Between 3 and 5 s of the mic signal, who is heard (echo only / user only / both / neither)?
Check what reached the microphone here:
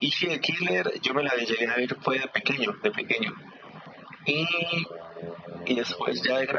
echo only